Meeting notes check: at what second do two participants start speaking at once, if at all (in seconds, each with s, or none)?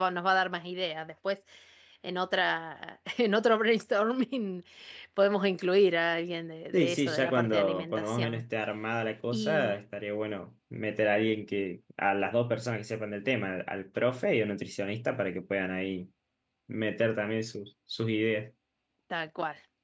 6.7 s